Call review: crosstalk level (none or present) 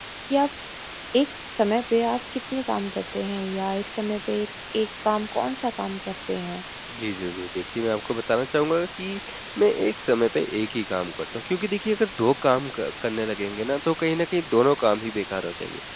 none